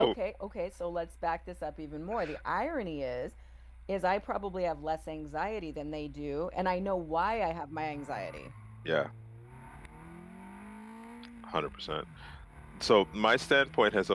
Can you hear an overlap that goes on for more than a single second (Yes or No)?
No